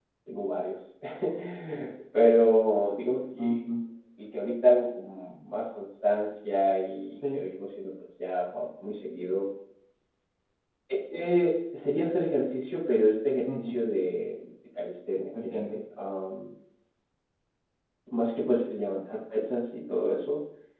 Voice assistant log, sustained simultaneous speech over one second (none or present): none